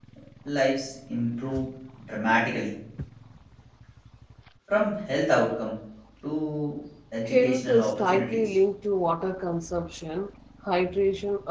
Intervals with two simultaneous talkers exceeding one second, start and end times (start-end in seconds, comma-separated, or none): 7.2-8.5